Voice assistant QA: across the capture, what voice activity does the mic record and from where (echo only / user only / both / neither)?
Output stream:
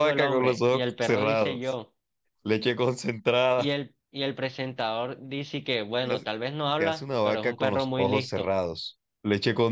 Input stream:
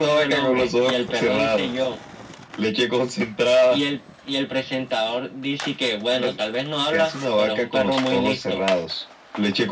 echo only